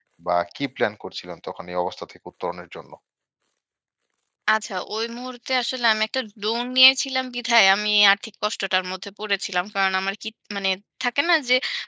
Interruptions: none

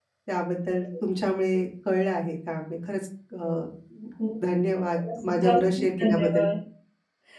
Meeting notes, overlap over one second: present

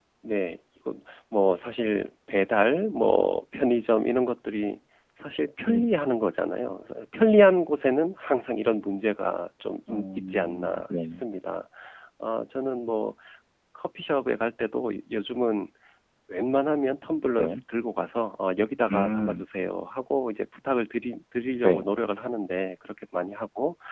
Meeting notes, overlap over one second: present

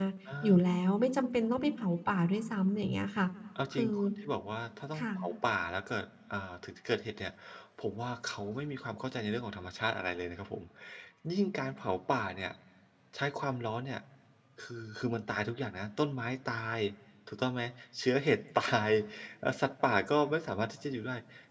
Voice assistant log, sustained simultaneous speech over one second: none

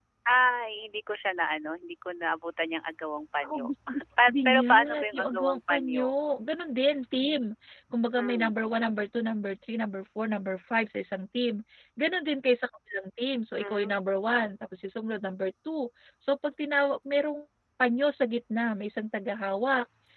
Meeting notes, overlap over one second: present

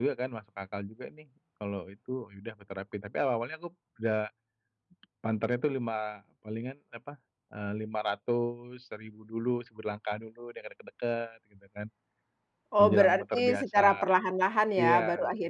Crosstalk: present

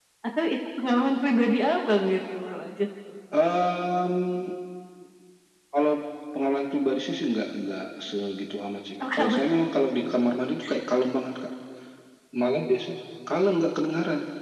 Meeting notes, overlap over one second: none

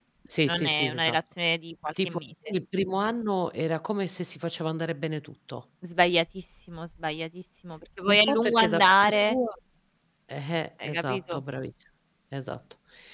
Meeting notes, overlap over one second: present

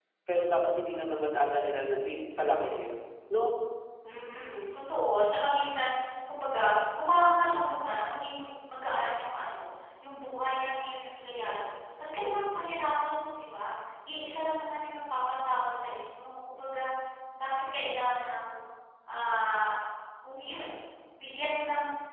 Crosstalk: none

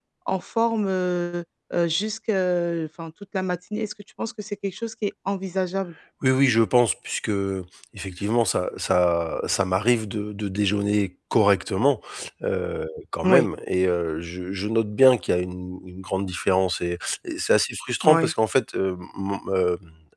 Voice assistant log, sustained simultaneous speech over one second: none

